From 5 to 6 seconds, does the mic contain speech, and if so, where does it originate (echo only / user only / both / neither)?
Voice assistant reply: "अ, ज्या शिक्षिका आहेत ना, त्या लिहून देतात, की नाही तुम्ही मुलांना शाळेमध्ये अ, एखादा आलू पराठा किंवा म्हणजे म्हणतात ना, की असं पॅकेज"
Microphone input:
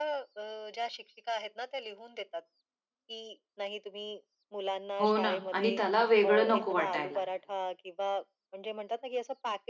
both